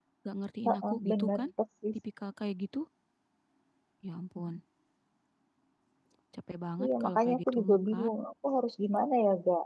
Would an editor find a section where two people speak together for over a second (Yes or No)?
Yes